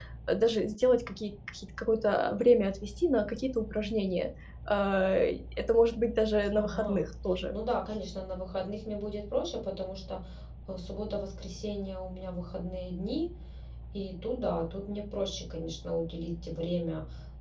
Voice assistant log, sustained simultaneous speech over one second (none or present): none